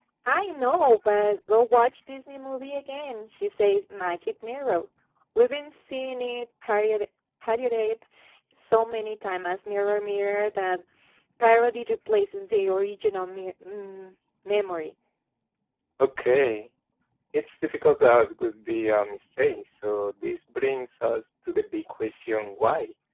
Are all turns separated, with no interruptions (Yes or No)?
Yes